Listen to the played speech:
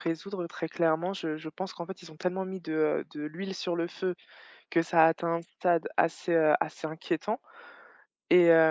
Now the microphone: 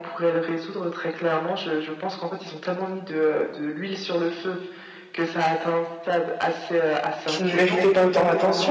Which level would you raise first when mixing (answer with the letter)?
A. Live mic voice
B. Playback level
B